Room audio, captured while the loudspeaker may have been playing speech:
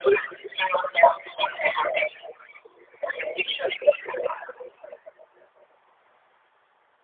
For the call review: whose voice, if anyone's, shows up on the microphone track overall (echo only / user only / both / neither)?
echo only